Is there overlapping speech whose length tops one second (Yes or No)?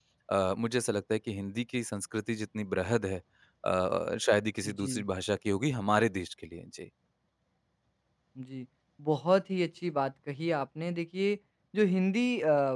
No